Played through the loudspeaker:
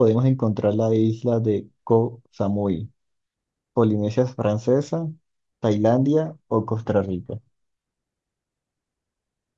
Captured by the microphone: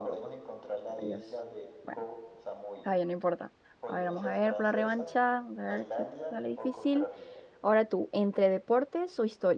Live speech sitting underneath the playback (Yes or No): No